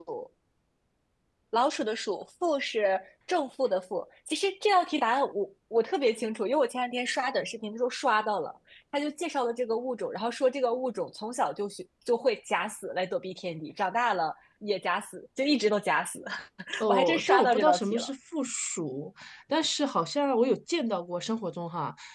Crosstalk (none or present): present